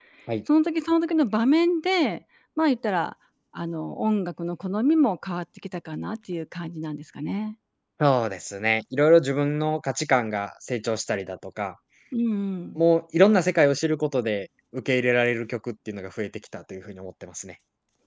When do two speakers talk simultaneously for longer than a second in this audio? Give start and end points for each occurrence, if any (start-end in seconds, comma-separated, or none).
none